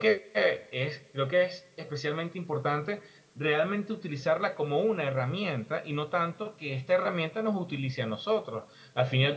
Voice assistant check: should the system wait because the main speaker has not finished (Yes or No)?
Yes